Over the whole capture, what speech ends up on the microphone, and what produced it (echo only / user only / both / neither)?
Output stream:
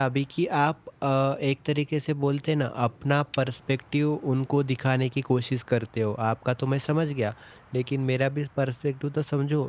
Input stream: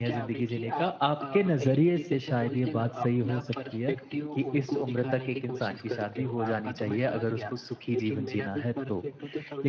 both